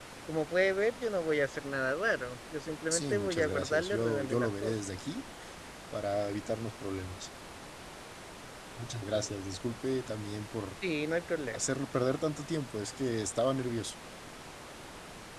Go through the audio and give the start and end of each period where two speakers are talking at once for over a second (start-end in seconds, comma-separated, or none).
2.9-4.7